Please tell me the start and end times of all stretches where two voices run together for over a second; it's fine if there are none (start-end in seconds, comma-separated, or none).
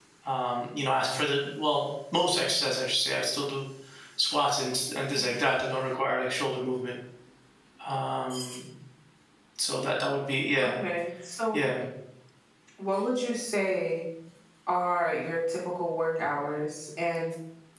none